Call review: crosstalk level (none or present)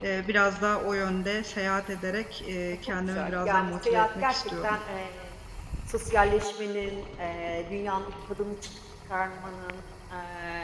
present